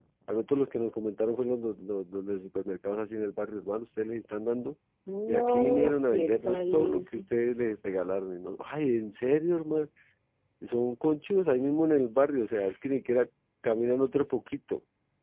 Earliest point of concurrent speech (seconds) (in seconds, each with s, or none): 5.3 s